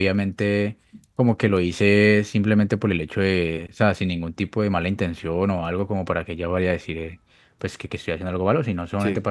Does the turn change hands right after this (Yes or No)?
No